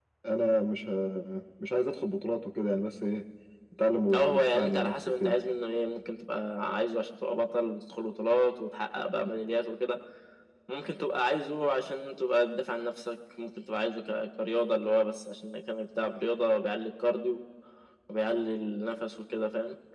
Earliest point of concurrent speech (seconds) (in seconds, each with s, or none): 4.1 s